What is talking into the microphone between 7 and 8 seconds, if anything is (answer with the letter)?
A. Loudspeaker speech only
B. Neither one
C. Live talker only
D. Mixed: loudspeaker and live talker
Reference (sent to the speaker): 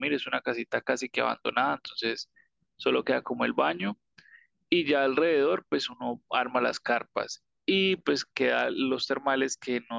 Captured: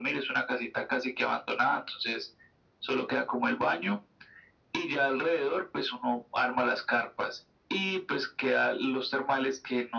A